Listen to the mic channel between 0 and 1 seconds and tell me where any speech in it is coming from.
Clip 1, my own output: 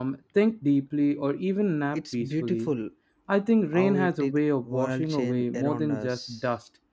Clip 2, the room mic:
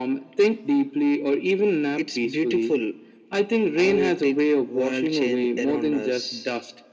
echo only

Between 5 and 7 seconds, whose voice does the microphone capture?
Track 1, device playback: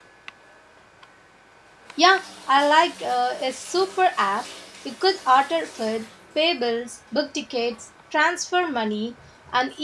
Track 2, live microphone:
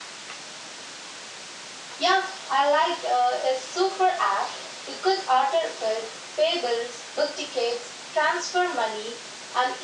echo only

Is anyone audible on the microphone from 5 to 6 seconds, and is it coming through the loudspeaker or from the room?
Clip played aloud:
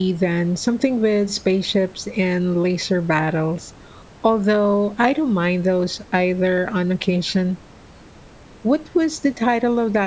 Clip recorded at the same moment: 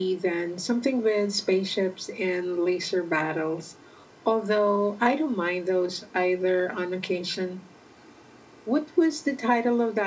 echo only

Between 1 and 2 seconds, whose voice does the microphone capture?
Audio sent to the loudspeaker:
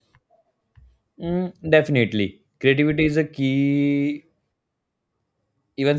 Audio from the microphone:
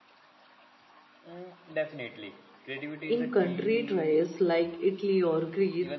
echo only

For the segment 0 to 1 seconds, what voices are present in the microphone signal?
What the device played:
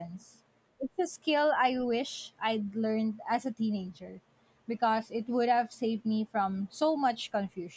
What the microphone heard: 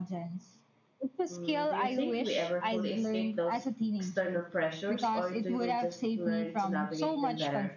echo only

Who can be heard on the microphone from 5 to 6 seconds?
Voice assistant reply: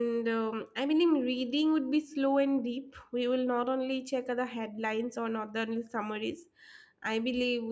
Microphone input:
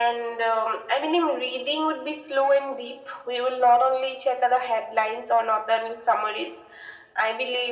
echo only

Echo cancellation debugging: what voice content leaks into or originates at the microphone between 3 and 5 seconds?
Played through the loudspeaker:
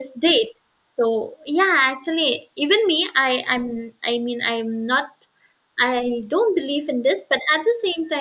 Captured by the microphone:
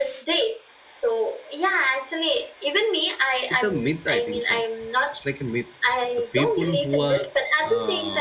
both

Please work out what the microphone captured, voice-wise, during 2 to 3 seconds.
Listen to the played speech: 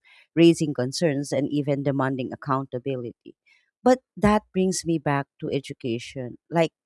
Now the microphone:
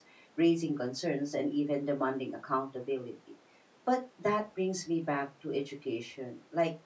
echo only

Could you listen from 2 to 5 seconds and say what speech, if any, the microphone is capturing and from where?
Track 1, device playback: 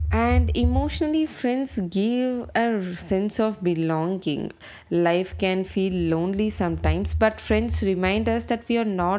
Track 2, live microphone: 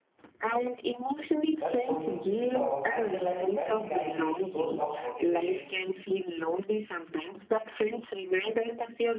both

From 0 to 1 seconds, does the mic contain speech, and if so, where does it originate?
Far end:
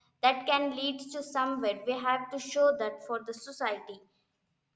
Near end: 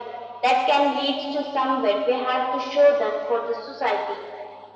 echo only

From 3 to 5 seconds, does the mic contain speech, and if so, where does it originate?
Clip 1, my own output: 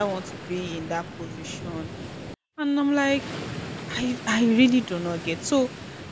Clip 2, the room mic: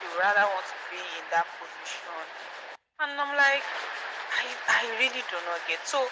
echo only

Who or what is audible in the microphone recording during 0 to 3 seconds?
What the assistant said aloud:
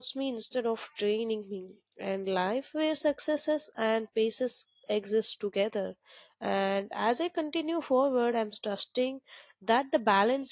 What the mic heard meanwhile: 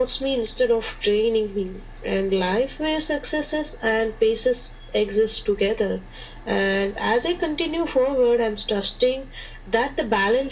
echo only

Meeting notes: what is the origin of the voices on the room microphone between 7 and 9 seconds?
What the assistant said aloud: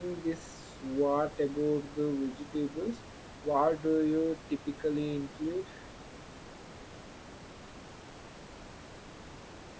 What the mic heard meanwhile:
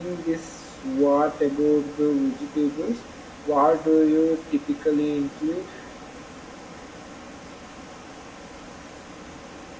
neither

